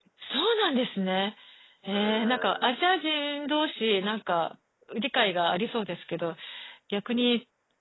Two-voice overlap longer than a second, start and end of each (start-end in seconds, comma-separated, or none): 1.9-3.4